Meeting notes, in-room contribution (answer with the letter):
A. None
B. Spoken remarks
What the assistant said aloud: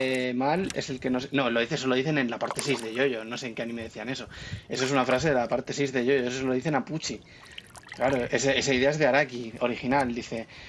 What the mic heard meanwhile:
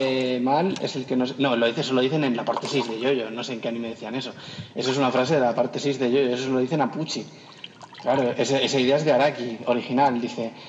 A